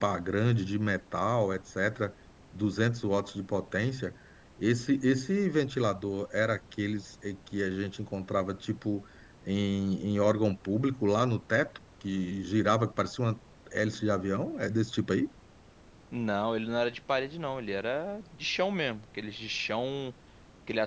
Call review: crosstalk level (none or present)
none